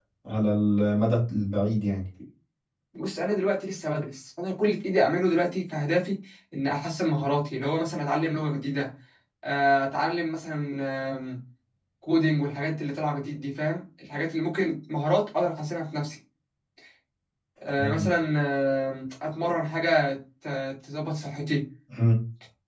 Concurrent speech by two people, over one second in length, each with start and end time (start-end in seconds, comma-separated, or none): none